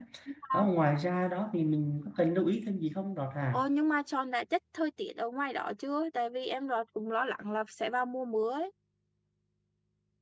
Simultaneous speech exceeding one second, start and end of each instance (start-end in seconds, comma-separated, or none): none